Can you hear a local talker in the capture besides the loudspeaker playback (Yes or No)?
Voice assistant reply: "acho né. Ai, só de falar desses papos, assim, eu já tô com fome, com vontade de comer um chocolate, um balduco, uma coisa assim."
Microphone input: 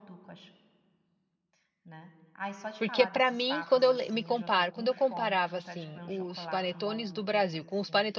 Yes